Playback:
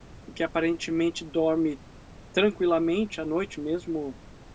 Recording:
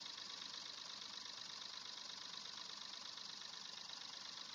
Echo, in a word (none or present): none